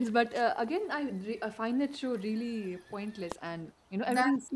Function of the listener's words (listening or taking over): taking over